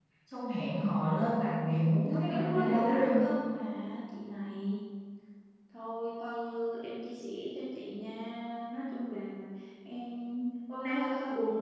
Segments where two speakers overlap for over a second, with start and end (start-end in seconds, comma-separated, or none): 1.9-3.3